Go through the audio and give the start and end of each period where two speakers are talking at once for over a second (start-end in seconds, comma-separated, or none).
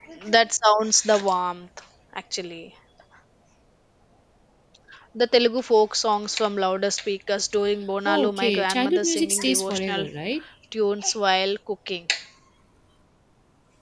8.1-10.1